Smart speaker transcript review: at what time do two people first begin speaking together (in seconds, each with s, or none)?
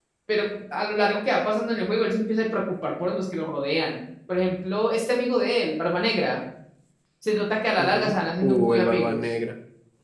7.8 s